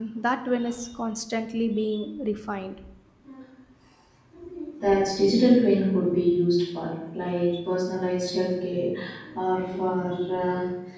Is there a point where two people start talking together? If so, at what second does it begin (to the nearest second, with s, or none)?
none